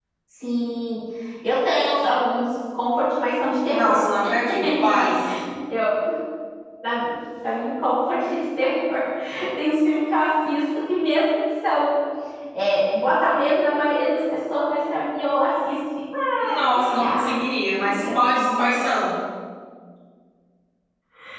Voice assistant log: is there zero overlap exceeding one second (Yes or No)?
No